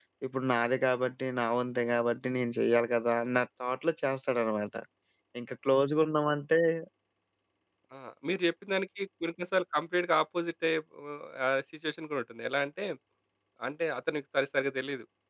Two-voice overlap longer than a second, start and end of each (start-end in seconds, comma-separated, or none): none